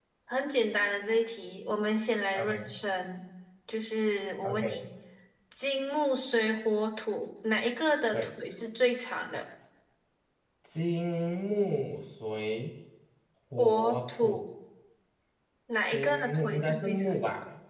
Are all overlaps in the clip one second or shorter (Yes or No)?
No